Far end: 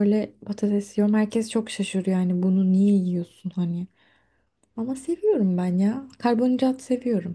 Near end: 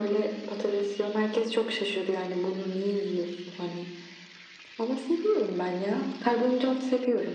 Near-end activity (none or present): none